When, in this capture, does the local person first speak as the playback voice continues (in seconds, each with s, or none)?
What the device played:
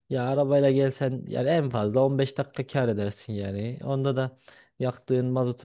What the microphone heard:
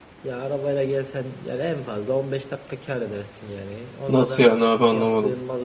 4.1 s